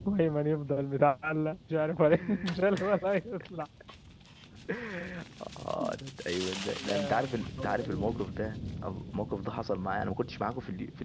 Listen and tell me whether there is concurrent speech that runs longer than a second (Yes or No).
Yes